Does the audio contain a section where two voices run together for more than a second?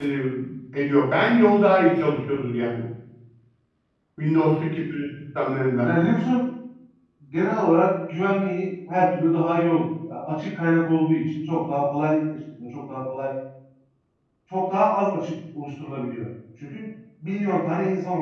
No

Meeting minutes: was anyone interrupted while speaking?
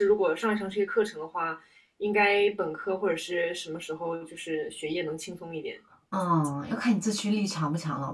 No

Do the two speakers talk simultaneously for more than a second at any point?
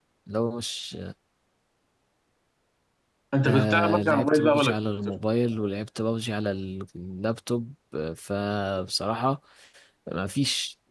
Yes, from 3.4 s

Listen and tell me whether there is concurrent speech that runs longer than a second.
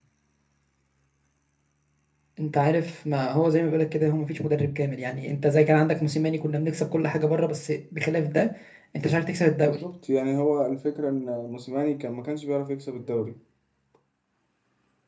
No

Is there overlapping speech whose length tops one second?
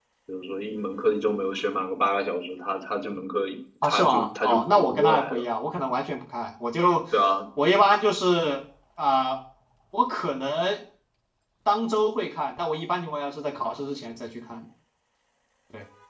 Yes, from 3.8 s

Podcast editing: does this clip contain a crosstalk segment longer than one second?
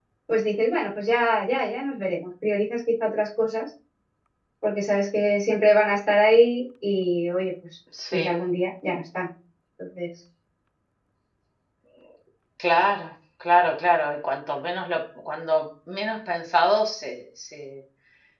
No

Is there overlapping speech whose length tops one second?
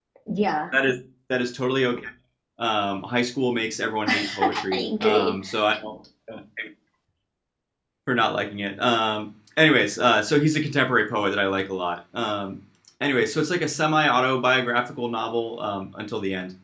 Yes, from 4.1 s

